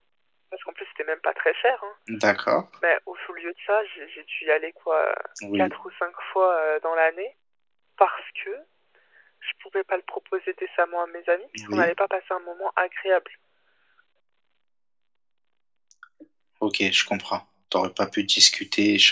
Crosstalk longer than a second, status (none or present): none